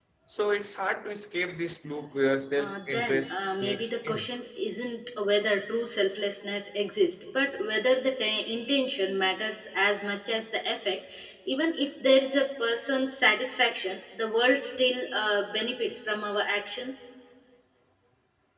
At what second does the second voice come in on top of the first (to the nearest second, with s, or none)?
3 s